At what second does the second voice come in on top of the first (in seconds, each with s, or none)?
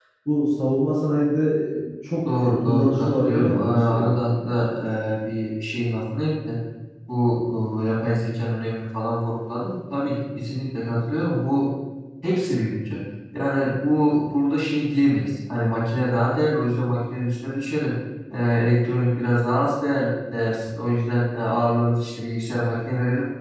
2.2 s